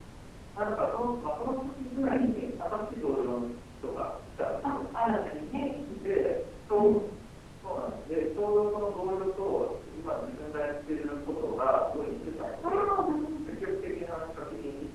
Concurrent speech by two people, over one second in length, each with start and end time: none

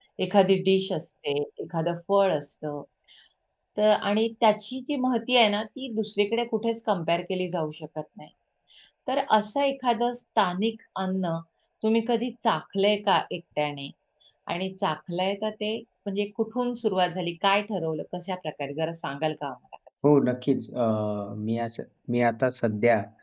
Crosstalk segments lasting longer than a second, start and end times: none

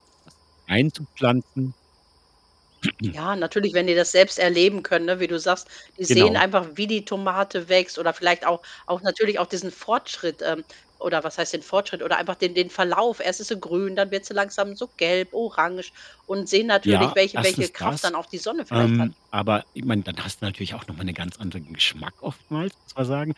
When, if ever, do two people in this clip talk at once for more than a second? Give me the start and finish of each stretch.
16.9-18.1

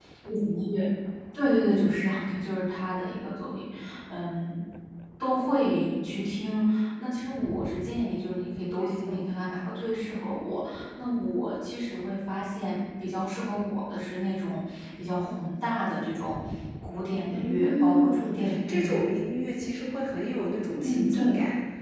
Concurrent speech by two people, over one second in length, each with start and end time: 17.3-19.1

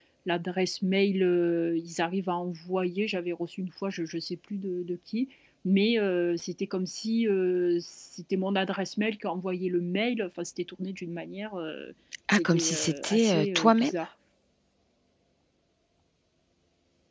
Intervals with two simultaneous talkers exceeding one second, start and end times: 12.3-13.9

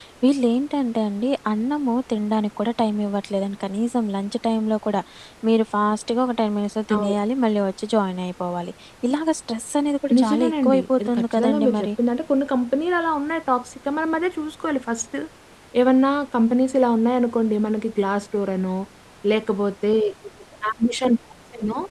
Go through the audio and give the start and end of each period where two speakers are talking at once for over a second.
10.2-11.9

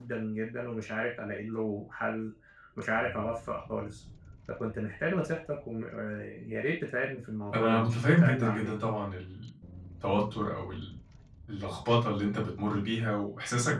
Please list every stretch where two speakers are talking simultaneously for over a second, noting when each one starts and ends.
7.5-8.7

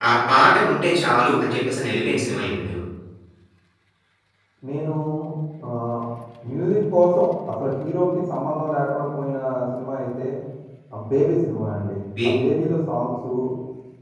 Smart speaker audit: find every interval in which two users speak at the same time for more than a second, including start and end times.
none

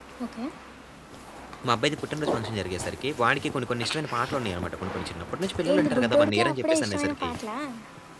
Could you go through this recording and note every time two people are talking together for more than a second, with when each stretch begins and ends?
5.7-7.3

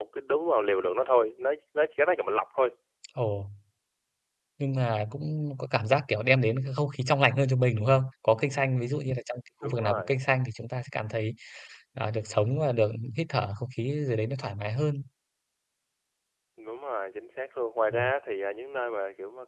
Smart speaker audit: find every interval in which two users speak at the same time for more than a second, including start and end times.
none

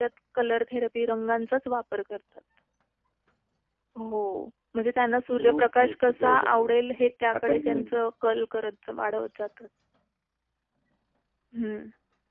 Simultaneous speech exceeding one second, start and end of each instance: 5.4-6.8

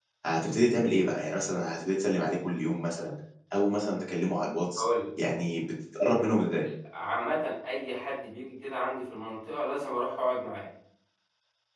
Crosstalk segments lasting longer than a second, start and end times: none

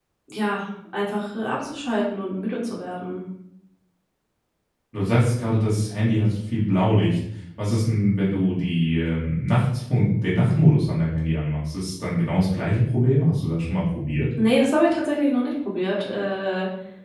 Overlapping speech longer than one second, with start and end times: none

